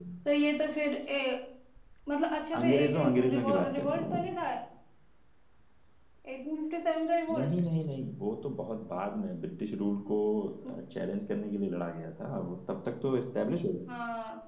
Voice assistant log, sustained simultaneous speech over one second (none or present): present